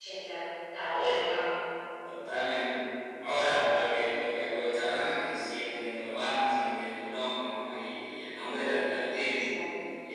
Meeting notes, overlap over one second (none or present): none